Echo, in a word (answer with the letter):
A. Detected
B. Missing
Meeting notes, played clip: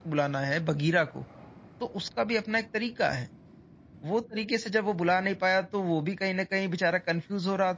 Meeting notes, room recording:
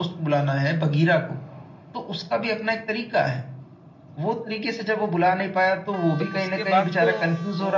A